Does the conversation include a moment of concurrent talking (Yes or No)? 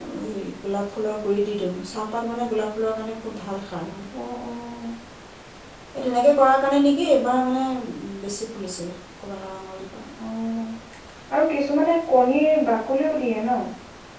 No